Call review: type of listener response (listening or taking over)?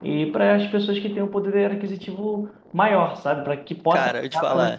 taking over